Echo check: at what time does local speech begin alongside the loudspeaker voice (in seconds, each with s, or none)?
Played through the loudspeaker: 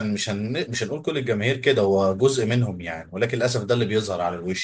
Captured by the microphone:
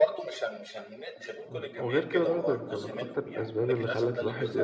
1.4 s